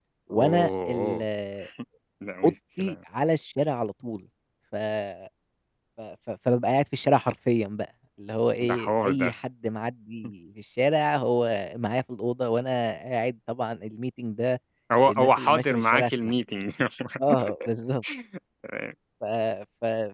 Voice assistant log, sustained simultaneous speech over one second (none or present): present